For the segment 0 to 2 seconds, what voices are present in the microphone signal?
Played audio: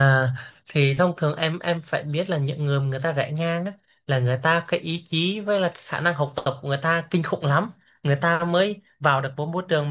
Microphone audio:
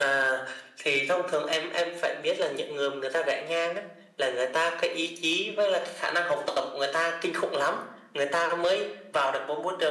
echo only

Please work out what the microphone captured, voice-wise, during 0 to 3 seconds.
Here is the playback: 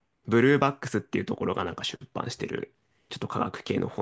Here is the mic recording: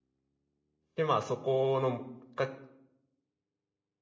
user only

